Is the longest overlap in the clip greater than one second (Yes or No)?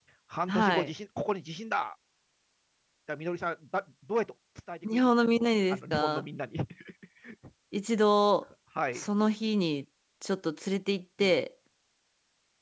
Yes